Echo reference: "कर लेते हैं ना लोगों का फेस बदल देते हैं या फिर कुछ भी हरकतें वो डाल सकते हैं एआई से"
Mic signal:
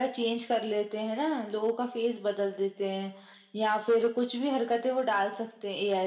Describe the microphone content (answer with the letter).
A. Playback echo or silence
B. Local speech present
A